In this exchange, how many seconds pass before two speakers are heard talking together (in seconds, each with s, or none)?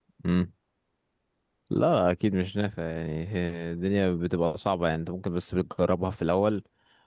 none